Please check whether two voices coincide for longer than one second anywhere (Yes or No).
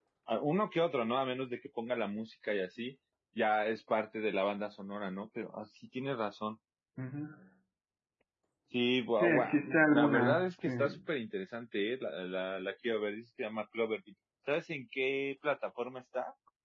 Yes